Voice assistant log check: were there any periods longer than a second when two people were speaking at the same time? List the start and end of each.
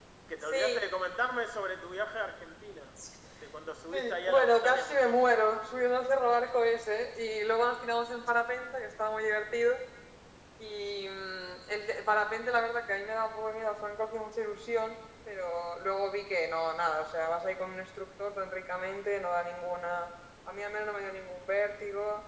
3.9-5.3

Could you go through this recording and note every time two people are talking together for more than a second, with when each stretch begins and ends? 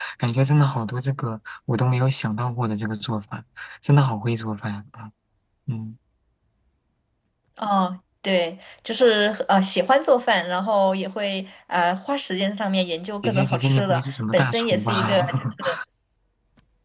13.2-15.2

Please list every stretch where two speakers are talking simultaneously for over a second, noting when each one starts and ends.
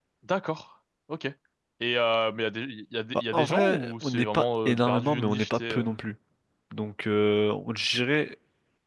3.3-5.9

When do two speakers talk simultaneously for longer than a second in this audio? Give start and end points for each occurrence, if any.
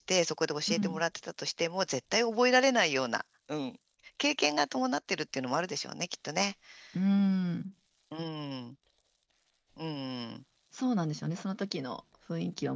none

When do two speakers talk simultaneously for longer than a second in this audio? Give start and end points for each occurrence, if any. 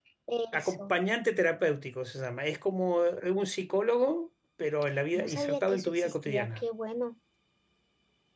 5.2-6.6

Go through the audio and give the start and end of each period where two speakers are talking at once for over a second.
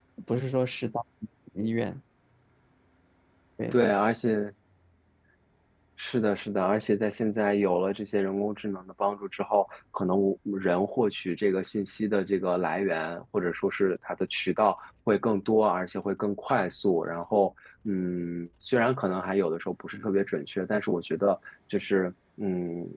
none

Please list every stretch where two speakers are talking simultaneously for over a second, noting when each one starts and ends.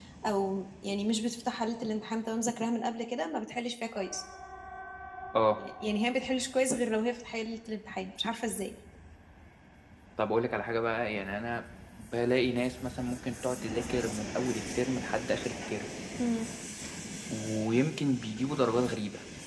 none

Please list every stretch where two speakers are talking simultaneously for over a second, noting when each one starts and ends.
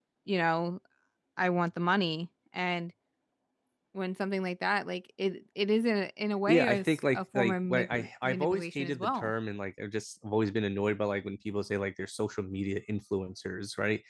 6.5-9.3

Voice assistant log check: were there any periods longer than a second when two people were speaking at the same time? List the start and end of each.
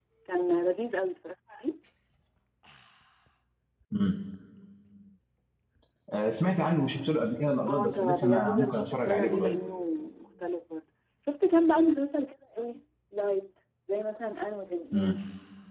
7.7-9.6

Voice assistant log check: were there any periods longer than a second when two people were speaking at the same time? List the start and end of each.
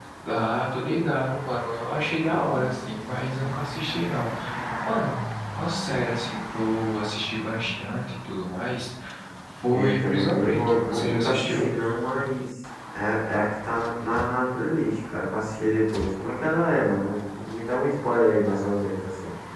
9.7-11.7

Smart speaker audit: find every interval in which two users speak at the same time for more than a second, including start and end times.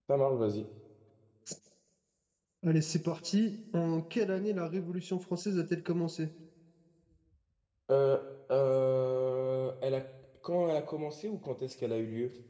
none

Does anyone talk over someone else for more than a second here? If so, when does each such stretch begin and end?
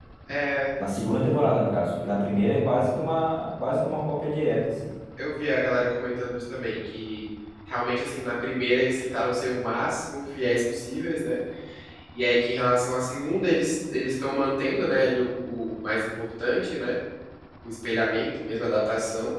none

